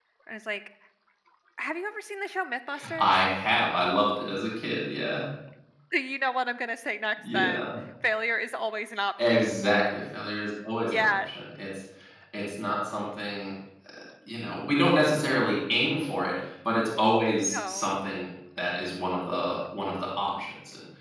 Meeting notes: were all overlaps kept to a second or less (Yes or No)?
Yes